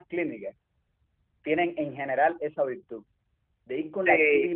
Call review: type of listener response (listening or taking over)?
listening